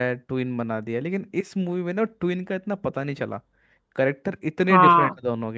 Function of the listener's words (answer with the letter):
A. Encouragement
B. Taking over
A